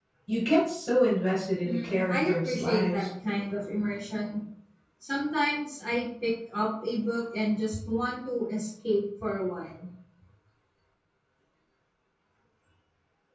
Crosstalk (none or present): present